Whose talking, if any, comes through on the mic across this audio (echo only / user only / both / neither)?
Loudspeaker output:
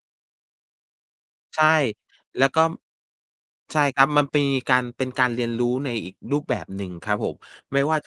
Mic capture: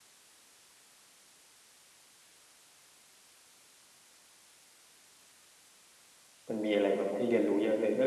user only